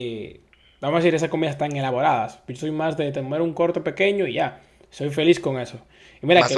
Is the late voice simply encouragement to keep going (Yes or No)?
Yes